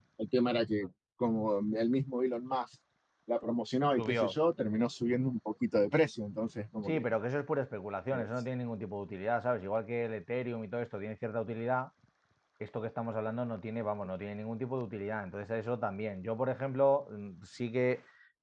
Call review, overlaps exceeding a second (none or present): none